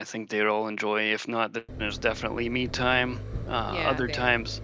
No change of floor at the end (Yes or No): Yes